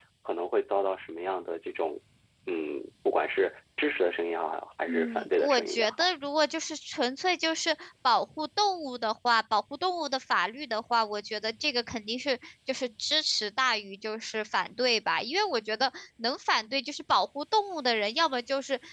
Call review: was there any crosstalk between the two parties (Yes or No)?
Yes